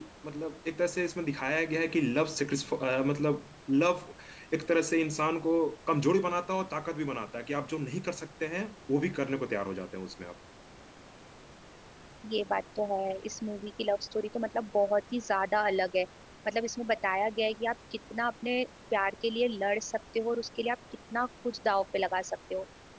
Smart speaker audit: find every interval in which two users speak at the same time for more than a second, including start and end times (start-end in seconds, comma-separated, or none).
none